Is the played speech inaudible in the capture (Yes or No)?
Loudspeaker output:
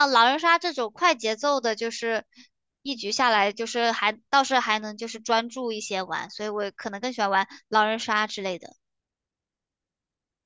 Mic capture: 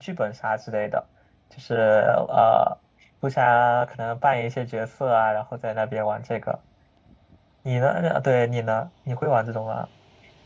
Yes